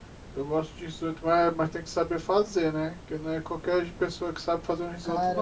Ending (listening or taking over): taking over